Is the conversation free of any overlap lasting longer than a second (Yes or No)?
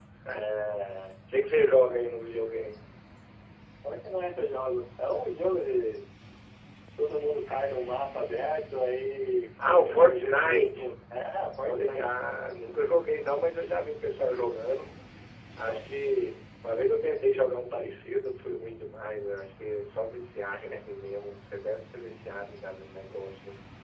No